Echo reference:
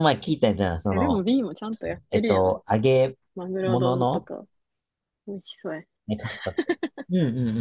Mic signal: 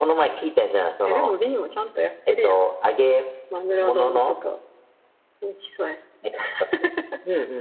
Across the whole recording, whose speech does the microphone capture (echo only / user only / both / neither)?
echo only